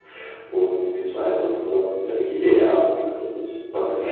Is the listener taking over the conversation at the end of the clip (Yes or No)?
Yes